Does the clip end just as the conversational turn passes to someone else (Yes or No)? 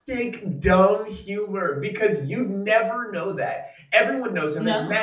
No